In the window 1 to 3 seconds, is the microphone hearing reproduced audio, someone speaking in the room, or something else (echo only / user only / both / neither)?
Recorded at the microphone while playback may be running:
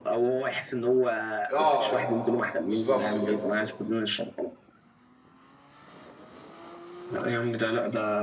both